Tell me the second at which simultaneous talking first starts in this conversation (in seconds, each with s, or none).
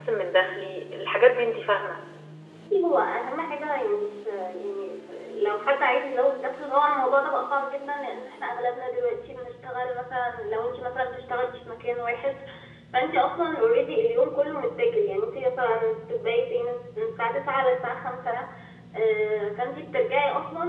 none